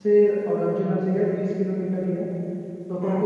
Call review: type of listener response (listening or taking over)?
listening